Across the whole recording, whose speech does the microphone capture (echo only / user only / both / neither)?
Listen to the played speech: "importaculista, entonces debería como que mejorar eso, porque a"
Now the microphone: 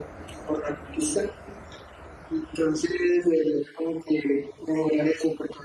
echo only